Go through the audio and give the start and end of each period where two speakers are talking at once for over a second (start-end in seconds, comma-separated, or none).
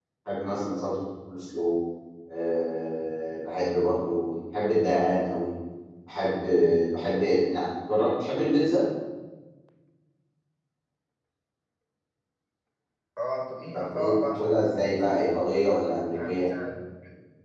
13.7-14.9